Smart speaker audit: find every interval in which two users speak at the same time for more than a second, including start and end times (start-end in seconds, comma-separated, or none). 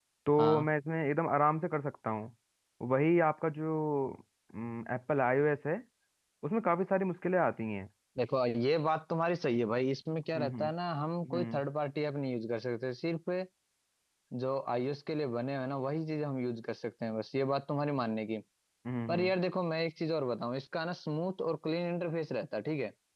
none